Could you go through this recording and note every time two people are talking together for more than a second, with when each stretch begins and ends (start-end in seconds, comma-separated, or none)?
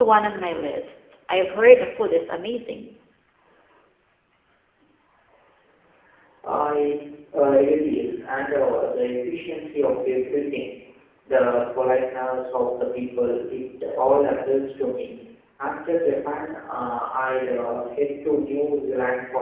none